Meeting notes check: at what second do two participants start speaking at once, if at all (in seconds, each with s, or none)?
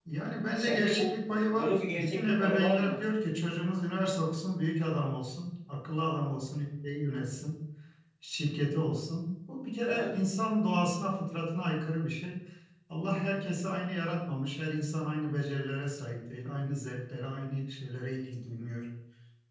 0.6 s